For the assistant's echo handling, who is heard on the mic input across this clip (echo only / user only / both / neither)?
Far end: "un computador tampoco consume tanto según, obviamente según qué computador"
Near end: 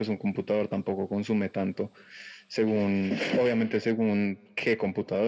echo only